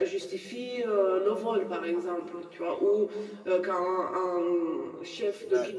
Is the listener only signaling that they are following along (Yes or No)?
Yes